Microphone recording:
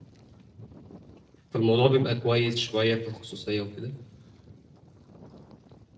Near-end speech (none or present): present